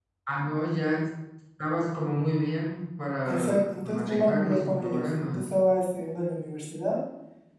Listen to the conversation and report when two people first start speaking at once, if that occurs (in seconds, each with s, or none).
3.3 s